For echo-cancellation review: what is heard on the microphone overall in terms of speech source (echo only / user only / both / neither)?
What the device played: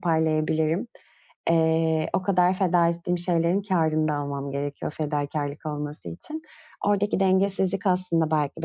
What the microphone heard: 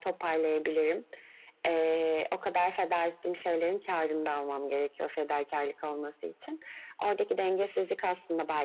echo only